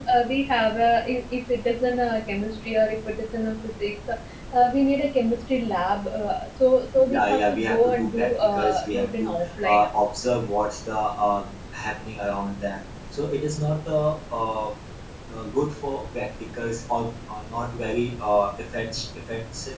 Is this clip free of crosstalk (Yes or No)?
No